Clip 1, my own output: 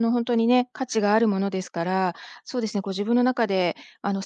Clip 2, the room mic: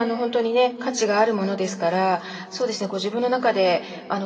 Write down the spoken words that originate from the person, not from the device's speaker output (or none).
none